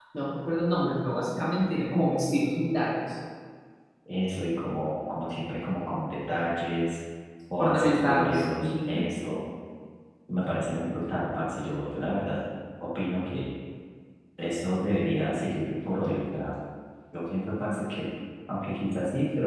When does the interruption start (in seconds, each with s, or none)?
7.6 s